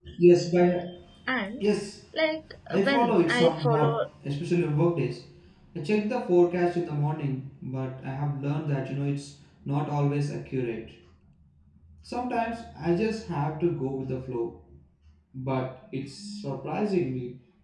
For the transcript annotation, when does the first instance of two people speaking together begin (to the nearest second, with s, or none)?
3 s